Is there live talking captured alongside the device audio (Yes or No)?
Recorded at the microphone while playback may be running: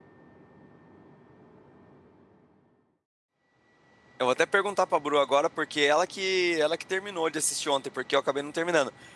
Yes